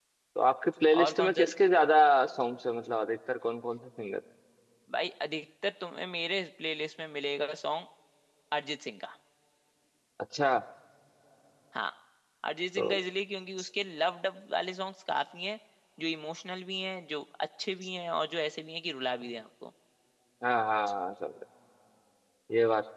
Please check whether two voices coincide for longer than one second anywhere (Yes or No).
No